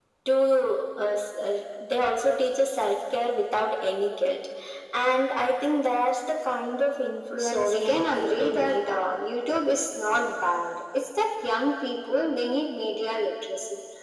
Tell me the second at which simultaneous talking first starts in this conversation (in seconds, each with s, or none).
7.4 s